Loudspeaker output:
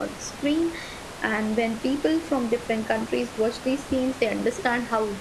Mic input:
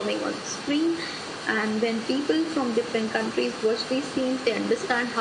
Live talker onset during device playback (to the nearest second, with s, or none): none